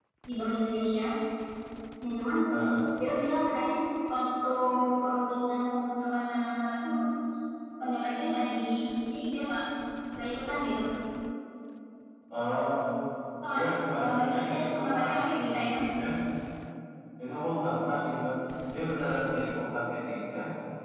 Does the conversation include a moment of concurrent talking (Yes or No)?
Yes